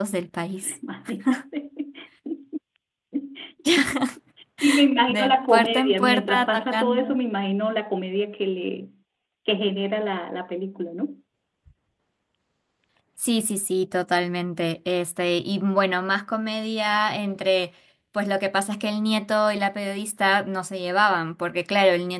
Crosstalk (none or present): present